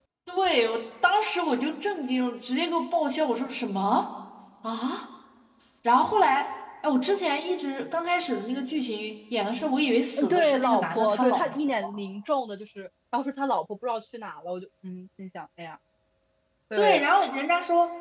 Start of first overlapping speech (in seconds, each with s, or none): 10.2 s